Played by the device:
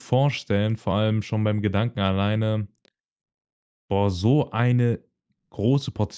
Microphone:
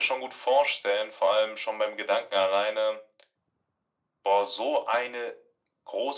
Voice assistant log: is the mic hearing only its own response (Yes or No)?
Yes